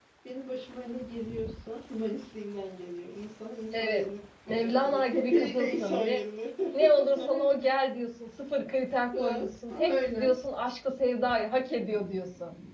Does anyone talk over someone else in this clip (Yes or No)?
Yes